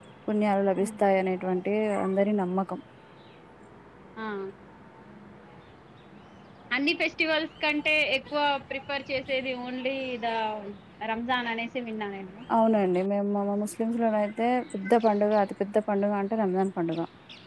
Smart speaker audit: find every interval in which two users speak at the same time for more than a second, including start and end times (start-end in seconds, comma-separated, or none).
none